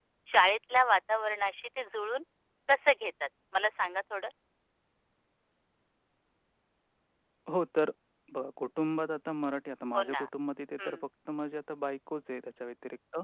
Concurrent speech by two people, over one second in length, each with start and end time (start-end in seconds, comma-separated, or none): none